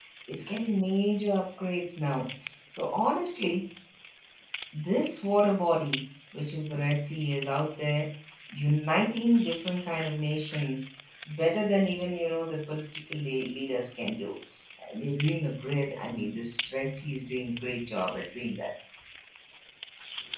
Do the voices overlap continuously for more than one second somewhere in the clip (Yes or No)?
No